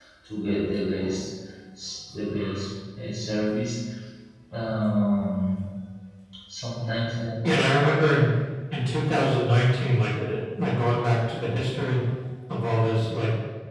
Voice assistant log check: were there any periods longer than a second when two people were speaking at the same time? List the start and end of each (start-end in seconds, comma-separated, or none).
none